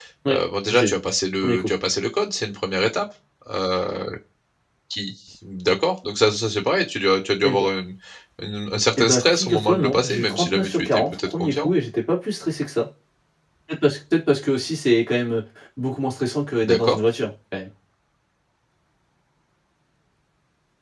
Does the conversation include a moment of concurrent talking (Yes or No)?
Yes